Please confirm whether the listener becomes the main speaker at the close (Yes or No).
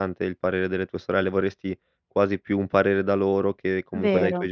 No